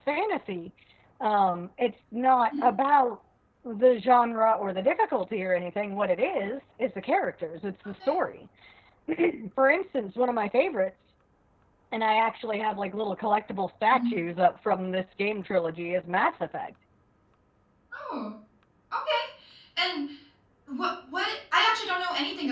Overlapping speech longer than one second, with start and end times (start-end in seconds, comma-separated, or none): none